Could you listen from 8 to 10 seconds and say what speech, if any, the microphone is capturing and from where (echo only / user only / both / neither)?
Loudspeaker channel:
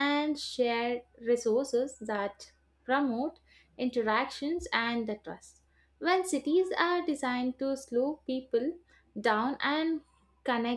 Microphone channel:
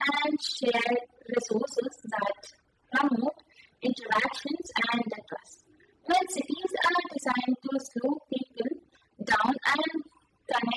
echo only